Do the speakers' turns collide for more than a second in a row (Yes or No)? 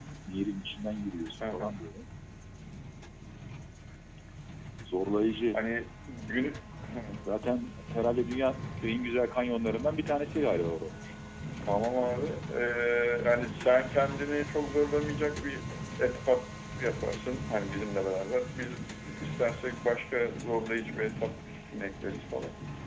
No